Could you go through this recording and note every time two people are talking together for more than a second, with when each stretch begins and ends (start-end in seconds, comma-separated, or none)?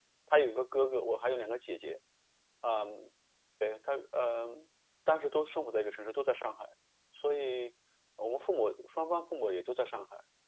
none